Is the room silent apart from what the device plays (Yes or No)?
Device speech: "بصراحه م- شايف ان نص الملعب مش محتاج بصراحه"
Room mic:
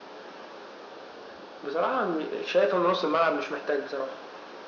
Yes